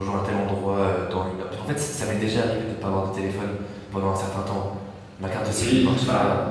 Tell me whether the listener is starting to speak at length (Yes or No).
Yes